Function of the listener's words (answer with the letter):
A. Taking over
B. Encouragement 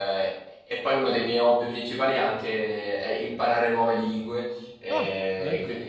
B